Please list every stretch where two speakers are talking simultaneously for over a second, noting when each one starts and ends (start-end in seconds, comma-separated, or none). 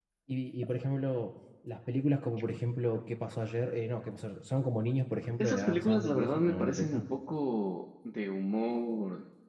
5.4-7.0